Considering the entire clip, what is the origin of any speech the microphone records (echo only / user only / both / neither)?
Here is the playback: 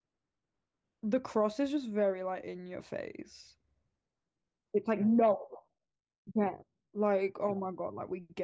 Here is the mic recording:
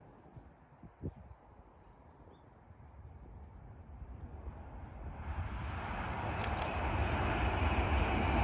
neither